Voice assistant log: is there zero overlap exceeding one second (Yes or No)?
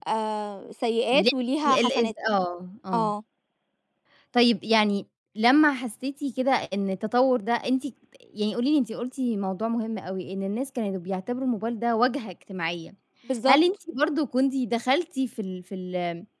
Yes